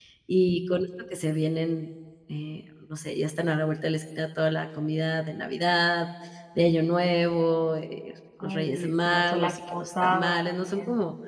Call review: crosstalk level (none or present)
present